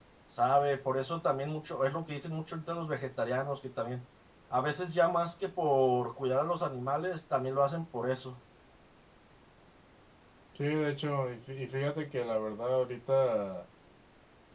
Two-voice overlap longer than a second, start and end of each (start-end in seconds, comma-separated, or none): none